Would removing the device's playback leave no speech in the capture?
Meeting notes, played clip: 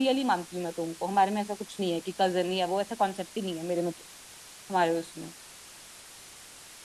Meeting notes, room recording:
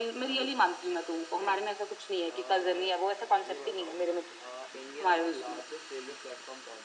No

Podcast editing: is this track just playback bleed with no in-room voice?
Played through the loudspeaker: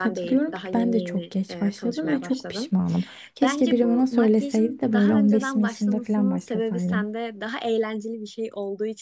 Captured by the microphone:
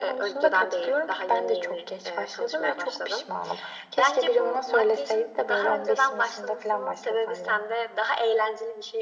Yes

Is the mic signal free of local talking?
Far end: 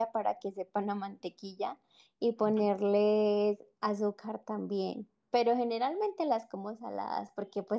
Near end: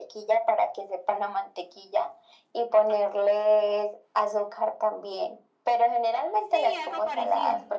No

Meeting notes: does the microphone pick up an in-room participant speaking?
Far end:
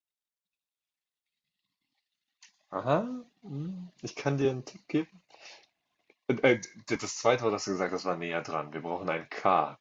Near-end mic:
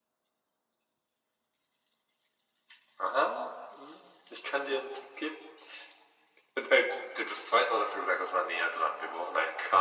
No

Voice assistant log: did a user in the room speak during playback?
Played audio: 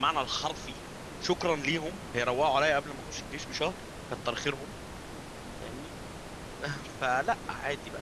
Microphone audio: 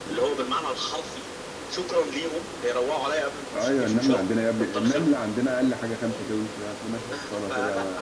Yes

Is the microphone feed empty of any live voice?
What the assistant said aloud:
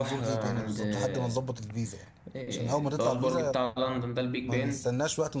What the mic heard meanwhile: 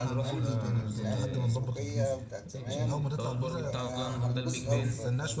No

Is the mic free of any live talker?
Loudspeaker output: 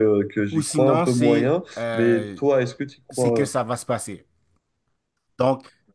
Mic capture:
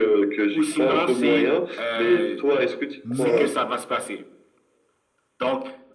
No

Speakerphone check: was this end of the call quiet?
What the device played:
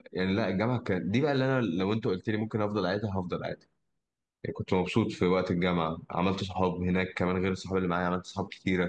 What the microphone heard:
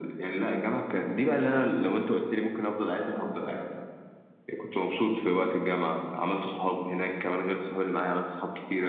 Yes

